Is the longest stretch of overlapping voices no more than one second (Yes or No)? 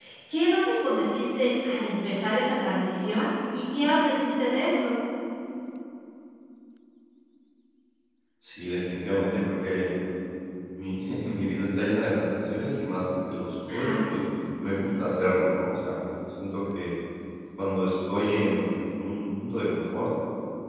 Yes